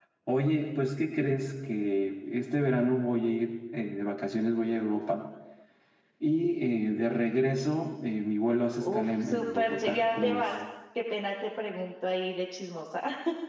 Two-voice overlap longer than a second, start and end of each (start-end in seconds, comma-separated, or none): 8.8-10.4